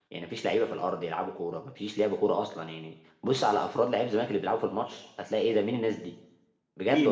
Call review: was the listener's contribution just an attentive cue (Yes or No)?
No